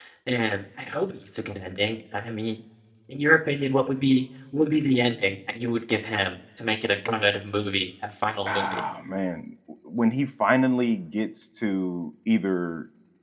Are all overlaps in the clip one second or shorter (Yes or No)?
Yes